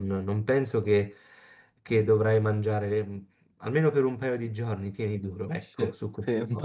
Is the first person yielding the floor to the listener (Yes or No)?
Yes